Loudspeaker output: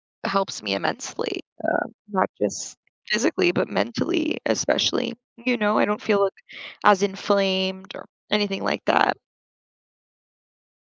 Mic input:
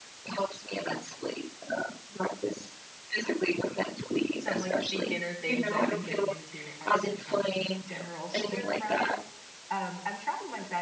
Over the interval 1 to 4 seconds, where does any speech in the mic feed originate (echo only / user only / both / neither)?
echo only